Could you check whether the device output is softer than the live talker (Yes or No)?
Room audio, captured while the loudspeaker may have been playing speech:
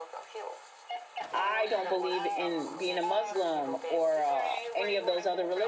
Yes